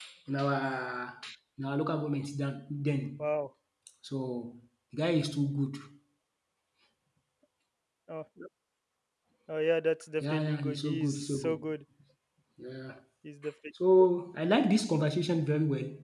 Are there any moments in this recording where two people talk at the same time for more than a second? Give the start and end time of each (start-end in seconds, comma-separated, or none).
10.2-11.6